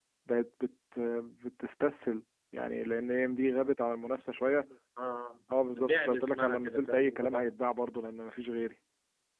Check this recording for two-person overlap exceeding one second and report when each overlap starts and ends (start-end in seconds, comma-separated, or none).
5.8-7.5